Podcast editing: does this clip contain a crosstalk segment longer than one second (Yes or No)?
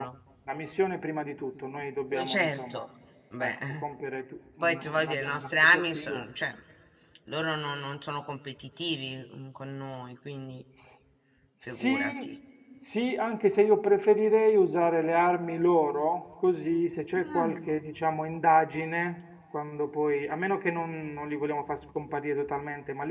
Yes